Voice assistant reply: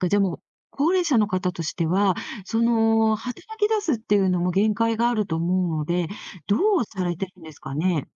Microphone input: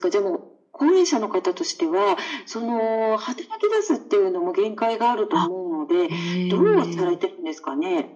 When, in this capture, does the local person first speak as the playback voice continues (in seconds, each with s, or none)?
5.3 s